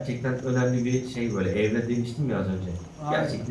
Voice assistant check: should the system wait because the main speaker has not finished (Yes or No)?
No